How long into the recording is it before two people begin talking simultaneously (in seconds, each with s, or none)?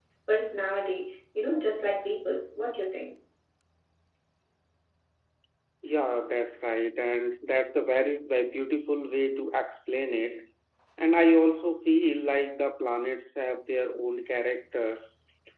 none